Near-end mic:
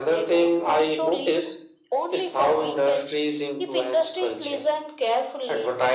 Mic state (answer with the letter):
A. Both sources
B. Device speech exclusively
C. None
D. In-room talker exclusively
B